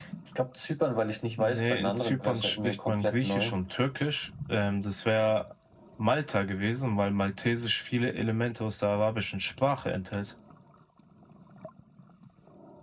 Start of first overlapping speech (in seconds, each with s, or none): 1.4 s